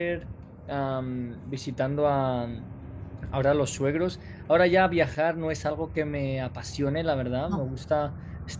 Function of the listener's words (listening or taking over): listening